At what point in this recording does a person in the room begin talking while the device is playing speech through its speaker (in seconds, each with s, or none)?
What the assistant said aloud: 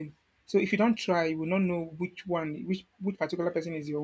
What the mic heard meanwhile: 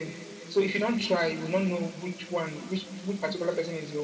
none